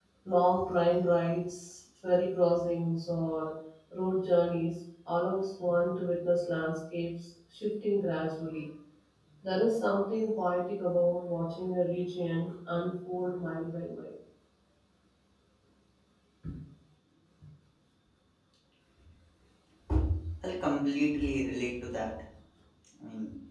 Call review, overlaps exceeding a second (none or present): none